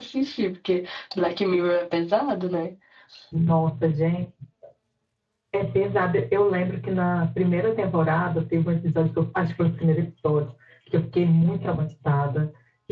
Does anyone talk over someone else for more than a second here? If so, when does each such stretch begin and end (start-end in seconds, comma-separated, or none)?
none